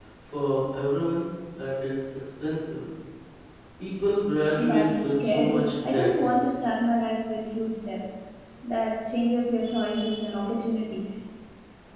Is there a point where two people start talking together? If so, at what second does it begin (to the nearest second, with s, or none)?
5 s